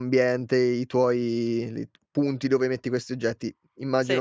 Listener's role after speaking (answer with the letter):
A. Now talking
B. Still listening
B